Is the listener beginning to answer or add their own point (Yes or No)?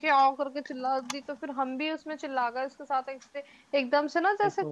No